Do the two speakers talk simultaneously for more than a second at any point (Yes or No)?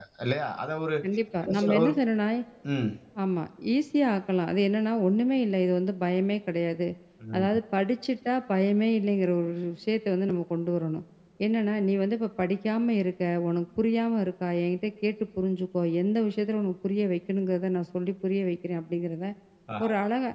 No